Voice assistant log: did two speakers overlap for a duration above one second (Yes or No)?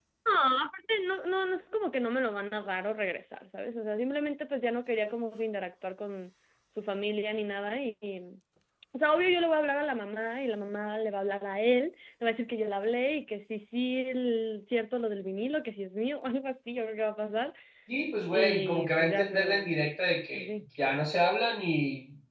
Yes